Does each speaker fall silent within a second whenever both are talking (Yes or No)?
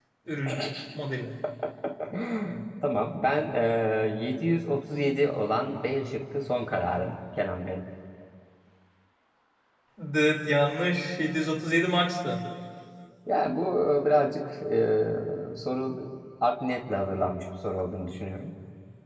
Yes